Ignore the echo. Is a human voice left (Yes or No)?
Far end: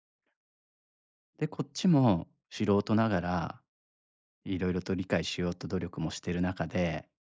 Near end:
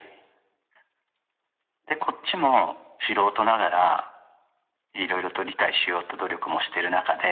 No